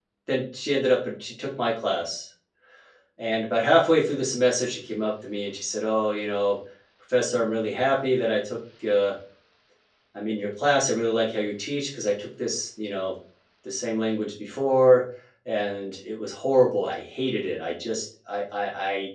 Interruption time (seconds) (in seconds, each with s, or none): none